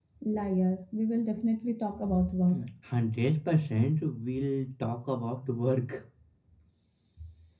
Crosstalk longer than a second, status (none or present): none